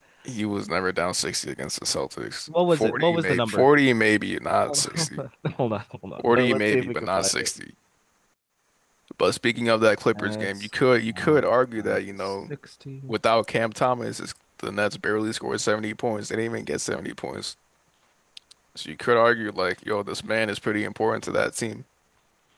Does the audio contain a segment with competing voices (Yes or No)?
Yes